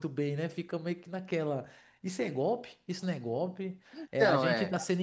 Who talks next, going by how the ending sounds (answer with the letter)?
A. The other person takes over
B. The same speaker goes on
B